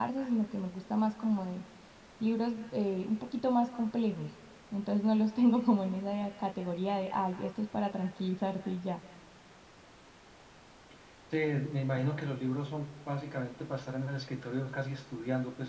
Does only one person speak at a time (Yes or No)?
Yes